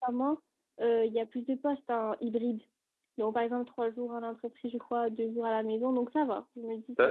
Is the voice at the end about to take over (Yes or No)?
Yes